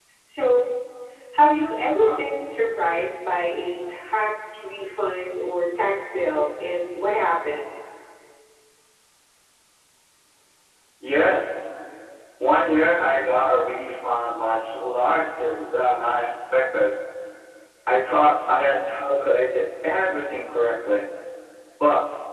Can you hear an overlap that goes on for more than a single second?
No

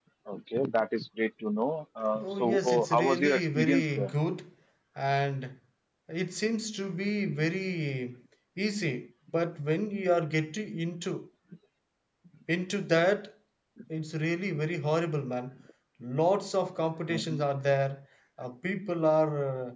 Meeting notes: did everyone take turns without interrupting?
No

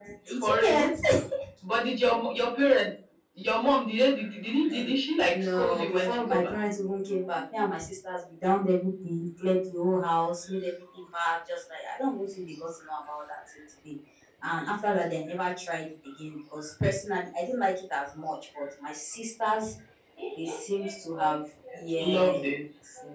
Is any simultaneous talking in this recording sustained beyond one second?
Yes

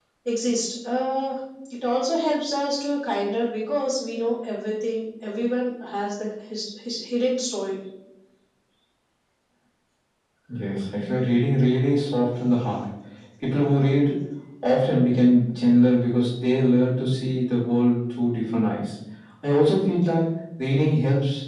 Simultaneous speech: No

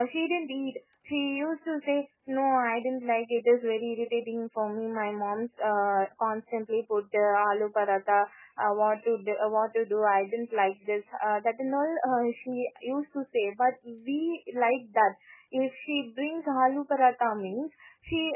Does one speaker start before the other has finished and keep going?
No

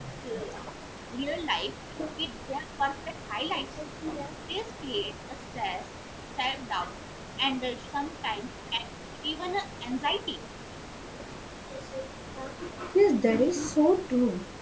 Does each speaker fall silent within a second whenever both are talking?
Yes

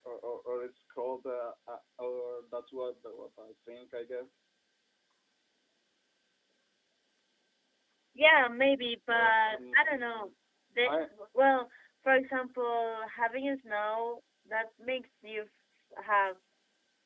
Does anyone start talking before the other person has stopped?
Yes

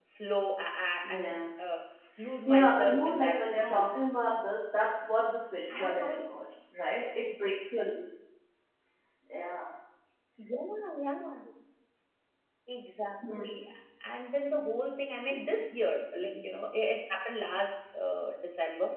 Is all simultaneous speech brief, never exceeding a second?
No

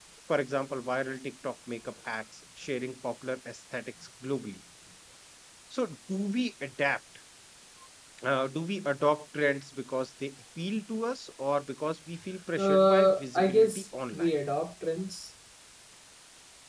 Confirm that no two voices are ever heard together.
No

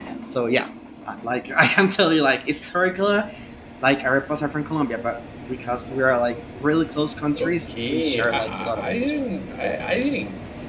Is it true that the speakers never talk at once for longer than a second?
No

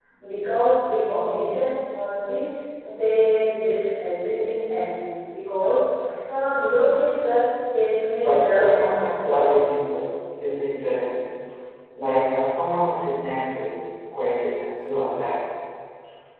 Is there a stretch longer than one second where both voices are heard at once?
Yes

